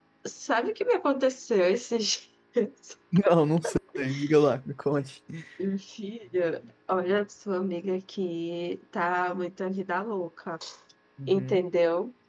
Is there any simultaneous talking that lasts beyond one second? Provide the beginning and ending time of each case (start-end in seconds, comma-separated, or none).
none